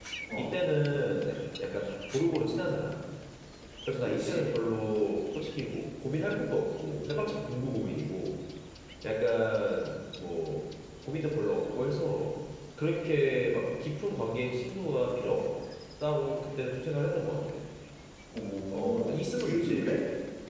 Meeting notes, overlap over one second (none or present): present